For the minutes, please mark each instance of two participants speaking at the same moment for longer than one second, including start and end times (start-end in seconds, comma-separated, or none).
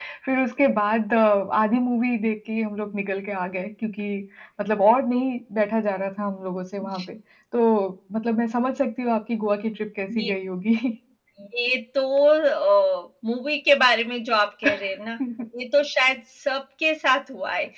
none